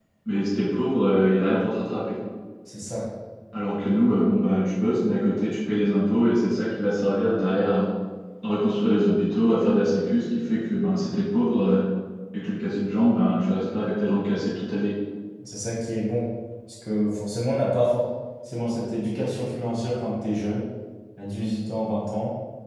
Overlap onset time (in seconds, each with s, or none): none